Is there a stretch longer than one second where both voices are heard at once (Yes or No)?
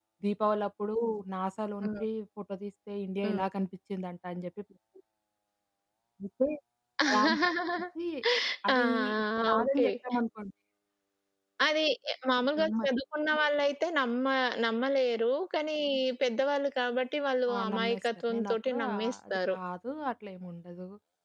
Yes